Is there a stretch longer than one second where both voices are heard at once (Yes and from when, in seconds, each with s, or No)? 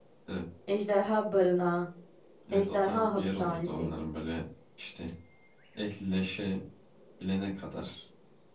Yes, from 2.5 s